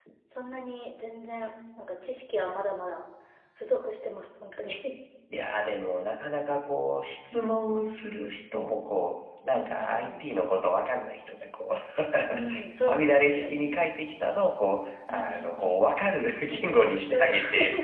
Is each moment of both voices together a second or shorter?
No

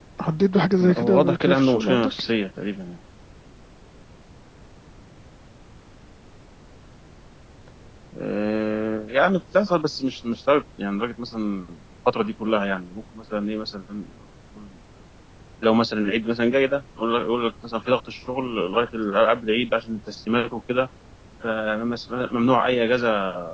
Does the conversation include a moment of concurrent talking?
Yes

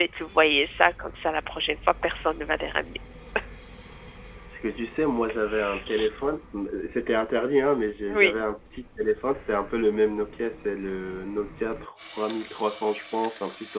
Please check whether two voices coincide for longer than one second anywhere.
No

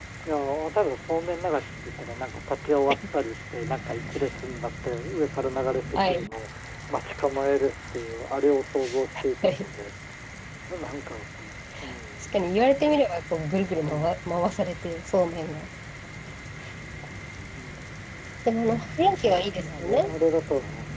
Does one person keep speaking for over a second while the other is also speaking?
No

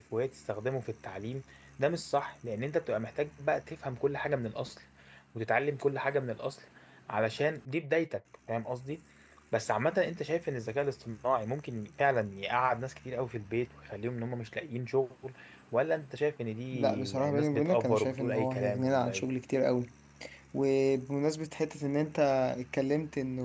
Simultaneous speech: Yes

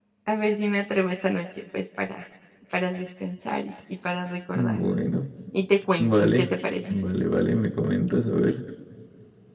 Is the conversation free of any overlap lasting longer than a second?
Yes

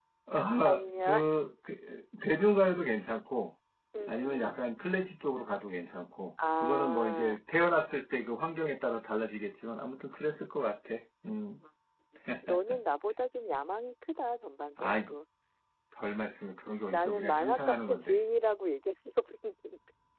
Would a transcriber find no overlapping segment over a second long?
No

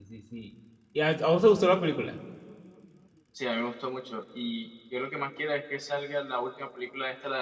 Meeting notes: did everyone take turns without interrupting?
Yes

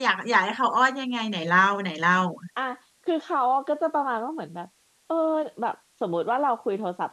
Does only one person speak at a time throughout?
Yes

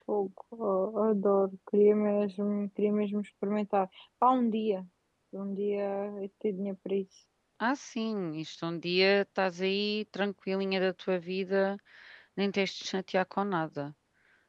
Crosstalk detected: No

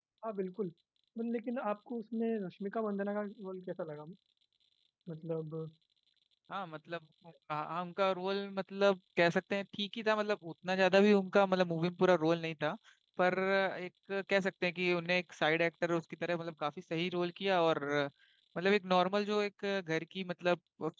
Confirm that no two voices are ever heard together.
Yes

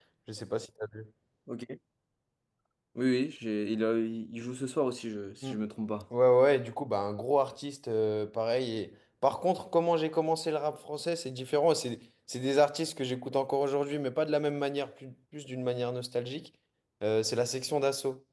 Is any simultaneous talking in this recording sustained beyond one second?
No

